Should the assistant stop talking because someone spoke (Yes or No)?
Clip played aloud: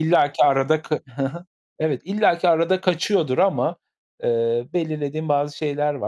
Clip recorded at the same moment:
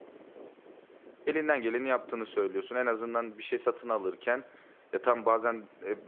Yes